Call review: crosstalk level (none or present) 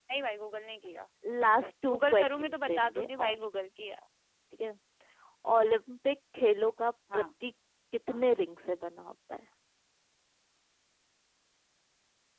present